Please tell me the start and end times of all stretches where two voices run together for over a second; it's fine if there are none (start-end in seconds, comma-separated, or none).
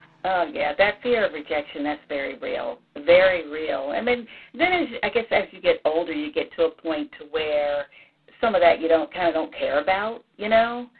none